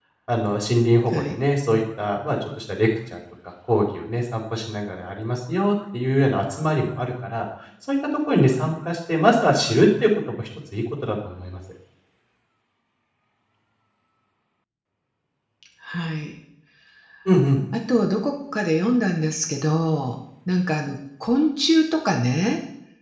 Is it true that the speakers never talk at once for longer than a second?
Yes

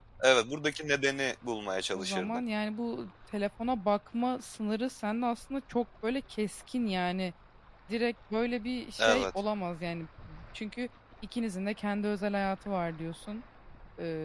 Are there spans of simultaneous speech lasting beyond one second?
No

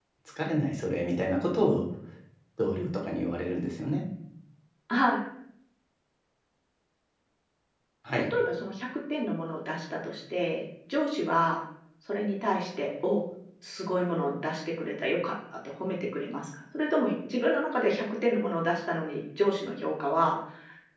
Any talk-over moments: No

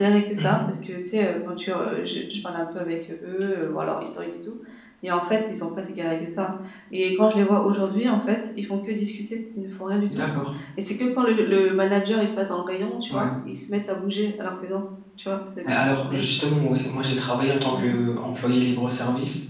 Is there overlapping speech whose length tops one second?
No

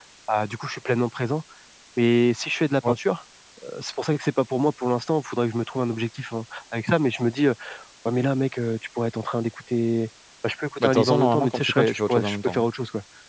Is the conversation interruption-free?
No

